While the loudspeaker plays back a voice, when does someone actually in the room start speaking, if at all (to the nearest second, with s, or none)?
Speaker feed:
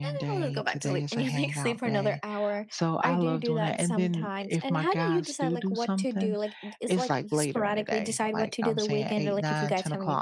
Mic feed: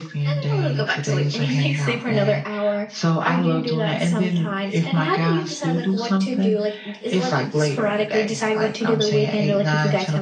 none